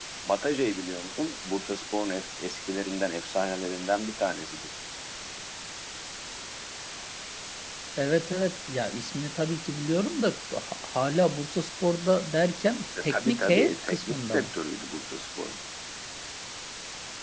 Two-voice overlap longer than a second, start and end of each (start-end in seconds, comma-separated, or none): 13.0-14.5